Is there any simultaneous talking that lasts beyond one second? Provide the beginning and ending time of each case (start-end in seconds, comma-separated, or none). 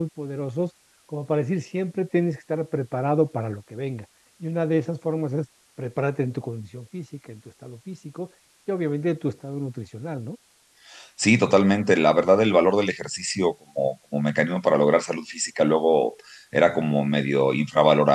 none